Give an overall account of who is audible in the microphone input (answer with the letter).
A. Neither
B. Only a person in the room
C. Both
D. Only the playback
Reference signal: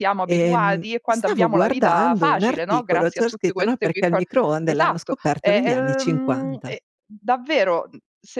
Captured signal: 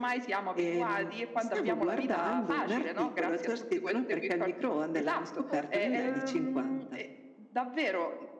C